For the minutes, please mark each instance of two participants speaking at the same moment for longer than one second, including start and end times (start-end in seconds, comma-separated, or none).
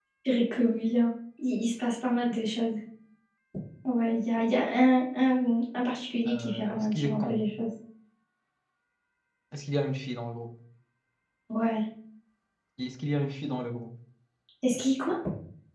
6.3-7.5